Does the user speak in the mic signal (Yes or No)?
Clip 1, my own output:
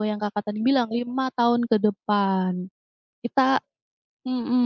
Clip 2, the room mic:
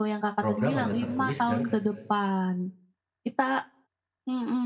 Yes